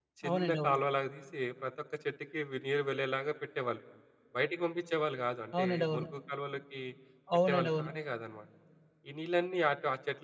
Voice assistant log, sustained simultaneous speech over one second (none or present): none